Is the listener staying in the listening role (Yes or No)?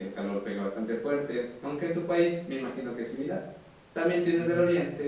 Yes